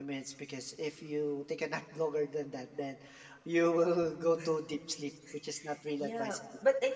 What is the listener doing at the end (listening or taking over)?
taking over